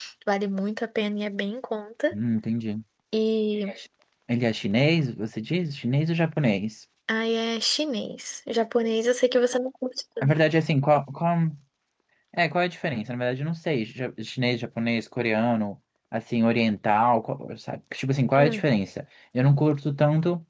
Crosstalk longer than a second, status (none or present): none